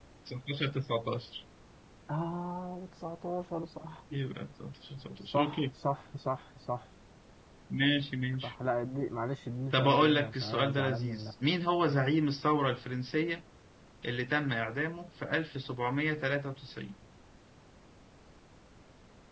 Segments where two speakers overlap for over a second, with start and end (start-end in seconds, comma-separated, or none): 9.7-11.3